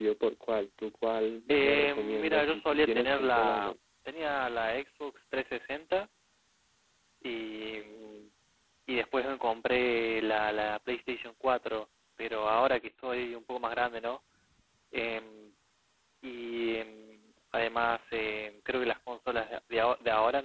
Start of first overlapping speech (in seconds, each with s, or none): 1.5 s